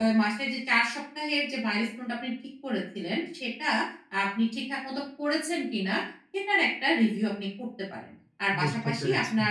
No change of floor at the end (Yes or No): Yes